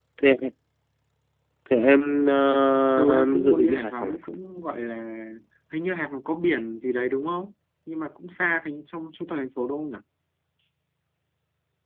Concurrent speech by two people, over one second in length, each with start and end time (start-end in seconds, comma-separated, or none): 3.0-4.2